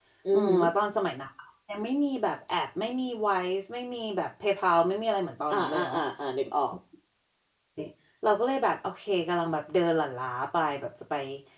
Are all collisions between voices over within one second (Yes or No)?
Yes